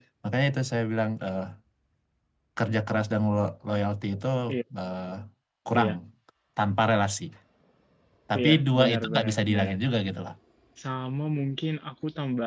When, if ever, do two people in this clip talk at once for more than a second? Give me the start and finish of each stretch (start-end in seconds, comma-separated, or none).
8.4-9.8